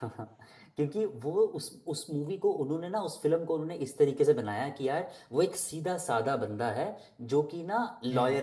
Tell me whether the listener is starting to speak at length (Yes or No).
No